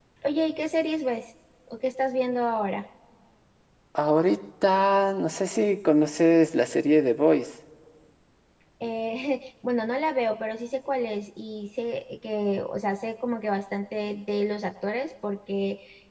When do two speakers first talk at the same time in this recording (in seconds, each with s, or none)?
none